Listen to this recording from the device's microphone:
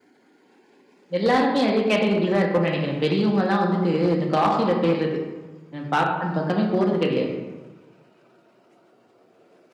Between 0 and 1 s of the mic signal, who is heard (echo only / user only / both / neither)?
neither